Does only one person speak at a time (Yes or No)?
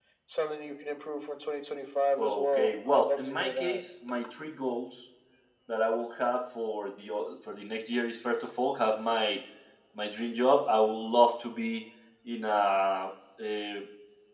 No